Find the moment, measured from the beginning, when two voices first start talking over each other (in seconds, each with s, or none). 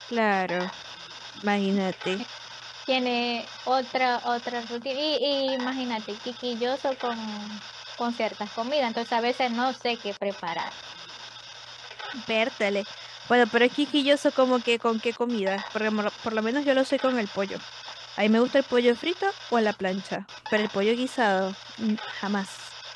none